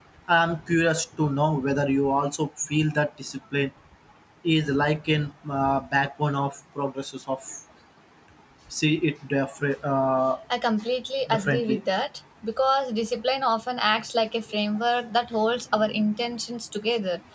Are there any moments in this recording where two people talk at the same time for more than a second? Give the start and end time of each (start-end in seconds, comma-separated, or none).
none